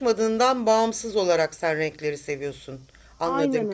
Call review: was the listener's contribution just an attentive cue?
No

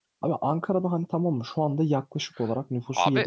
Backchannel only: Yes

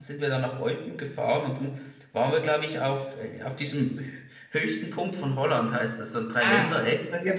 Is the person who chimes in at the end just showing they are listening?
No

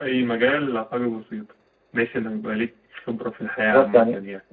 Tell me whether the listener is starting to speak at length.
Yes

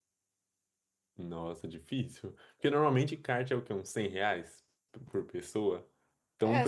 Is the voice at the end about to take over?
No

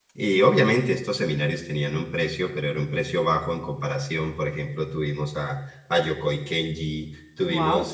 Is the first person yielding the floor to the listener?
No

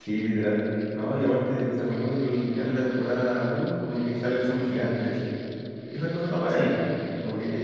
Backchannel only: Yes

